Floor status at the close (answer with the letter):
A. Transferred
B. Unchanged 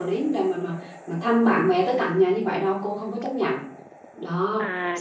A